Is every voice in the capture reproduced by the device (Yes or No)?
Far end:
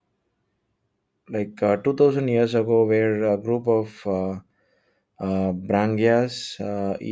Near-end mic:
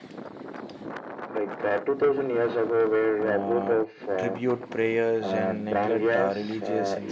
No